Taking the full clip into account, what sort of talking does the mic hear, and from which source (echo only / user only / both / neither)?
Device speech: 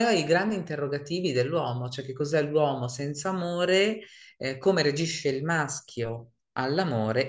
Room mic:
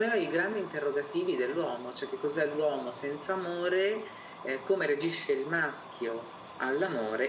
echo only